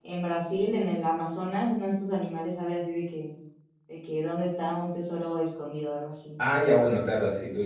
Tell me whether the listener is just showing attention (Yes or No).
No